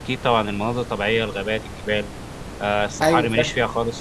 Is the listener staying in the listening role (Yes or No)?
Yes